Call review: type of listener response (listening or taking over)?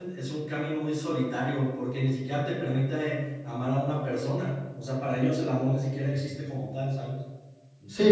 taking over